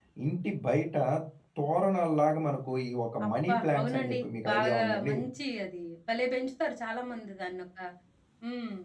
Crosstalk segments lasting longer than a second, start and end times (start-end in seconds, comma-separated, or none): 3.3-5.2